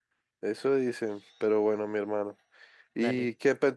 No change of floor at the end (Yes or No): Yes